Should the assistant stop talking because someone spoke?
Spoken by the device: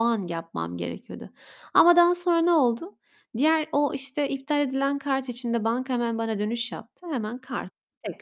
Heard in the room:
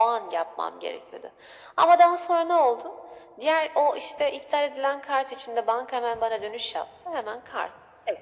No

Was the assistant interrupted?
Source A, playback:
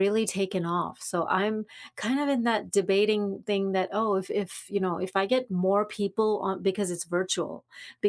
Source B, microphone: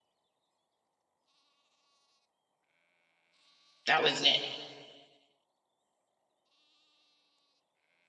Yes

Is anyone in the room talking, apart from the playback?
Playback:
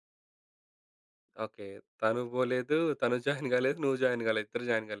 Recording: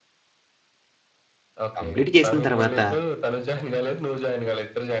Yes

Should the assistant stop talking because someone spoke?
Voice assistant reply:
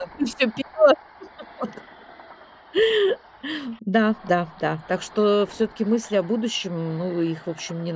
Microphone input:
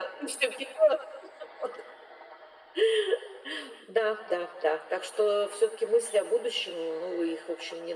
No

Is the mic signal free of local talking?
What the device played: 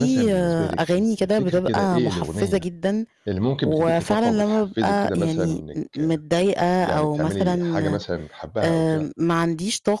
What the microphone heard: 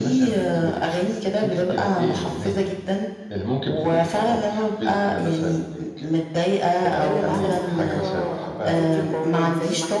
No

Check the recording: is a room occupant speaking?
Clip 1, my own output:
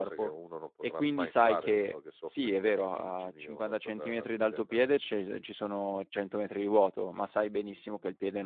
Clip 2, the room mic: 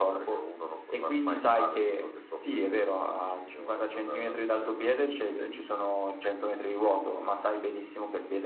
No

